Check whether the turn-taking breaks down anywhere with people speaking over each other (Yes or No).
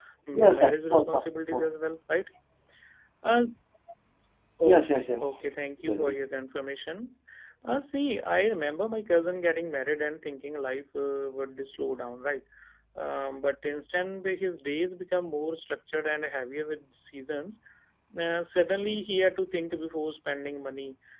Yes